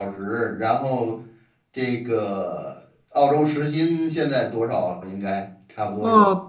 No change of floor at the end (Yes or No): No